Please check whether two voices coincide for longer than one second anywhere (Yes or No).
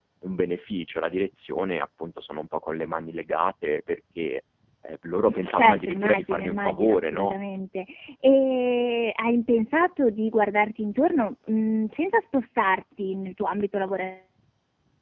Yes